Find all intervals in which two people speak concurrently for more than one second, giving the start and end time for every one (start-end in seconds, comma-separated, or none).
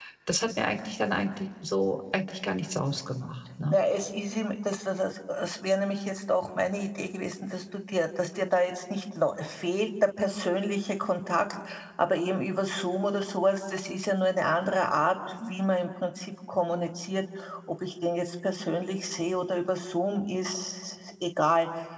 none